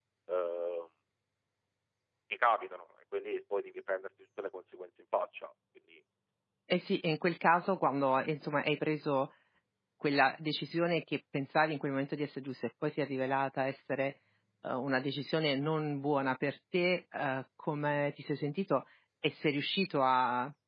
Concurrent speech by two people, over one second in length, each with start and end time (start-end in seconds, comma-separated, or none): none